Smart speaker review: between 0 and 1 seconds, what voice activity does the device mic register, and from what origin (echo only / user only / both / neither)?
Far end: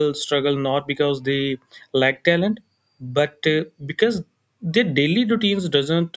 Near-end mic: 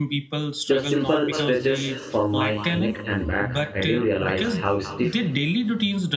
both